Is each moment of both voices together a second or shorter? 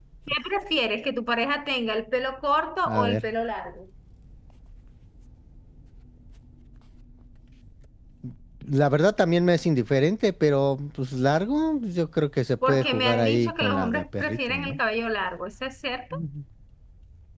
No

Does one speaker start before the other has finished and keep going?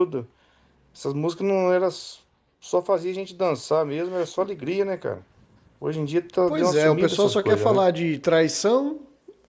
Yes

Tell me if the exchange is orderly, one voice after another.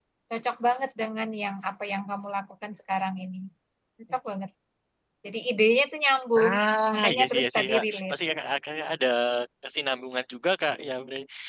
No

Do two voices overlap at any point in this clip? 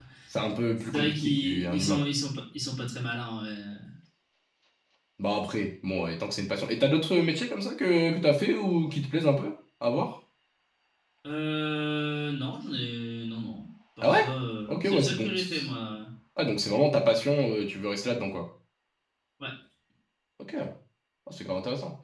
Yes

